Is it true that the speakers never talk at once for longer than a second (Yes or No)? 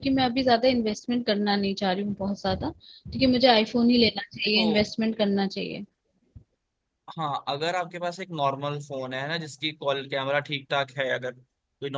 Yes